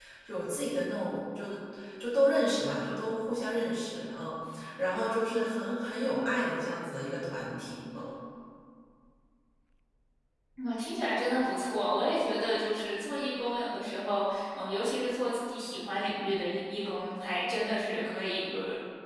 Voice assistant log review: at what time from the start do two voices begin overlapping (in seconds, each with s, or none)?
none